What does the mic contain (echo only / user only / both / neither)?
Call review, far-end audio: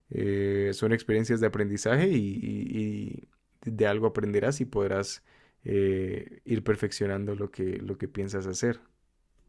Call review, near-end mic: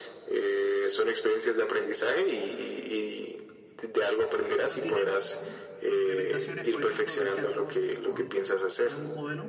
both